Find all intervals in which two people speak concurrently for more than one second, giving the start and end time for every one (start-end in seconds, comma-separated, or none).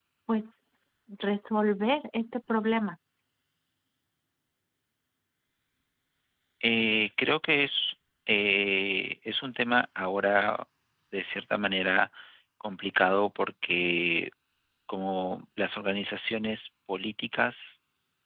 none